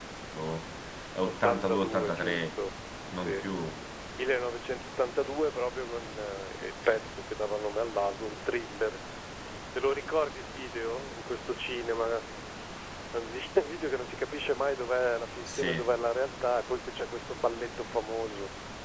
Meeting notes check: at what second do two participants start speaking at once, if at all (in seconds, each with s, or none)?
1.2 s